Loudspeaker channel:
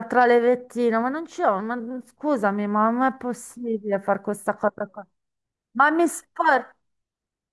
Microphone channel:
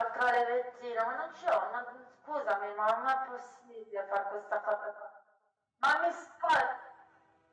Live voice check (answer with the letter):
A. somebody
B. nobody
B